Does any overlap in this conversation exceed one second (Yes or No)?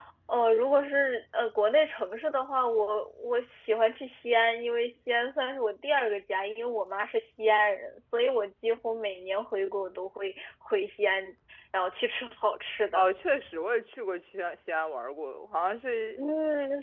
No